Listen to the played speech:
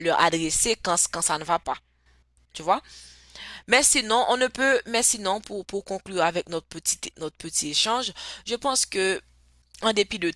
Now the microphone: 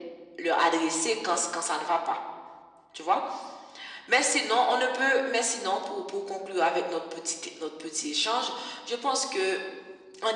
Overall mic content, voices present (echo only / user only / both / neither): echo only